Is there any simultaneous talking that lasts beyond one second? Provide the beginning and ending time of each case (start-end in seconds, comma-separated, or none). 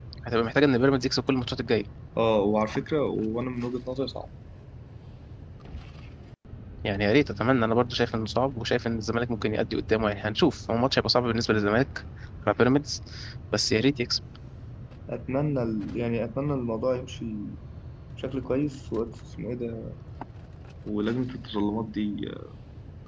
none